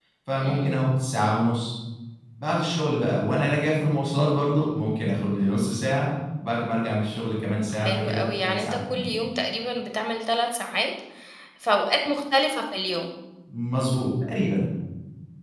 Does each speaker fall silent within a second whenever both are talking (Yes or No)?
No